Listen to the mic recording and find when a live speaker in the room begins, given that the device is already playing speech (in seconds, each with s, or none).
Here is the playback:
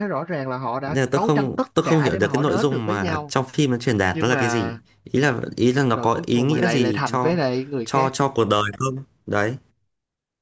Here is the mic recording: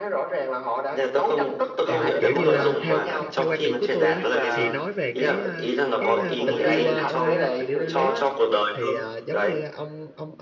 1.9 s